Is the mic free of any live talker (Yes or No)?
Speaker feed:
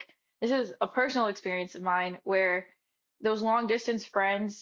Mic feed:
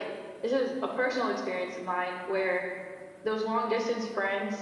Yes